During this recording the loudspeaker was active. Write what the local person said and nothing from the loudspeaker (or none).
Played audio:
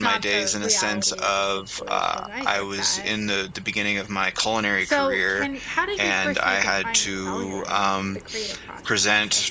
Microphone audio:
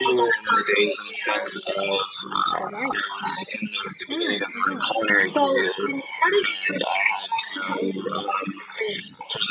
Mm-hmm.